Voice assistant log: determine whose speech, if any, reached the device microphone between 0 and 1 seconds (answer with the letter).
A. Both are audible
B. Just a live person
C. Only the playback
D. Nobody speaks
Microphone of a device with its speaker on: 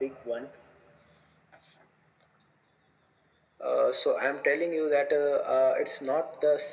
C